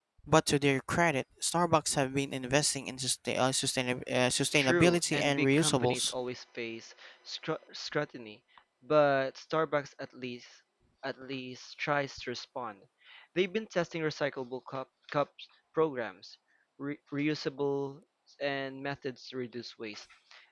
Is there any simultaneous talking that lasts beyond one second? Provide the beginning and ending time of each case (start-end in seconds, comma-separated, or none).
4.5-6.1